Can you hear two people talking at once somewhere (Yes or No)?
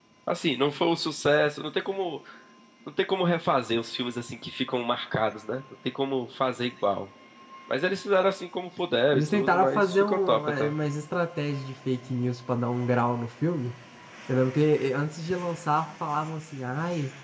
Yes